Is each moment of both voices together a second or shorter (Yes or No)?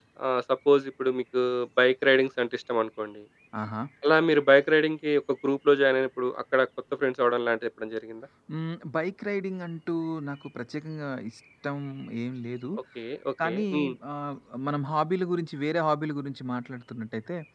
Yes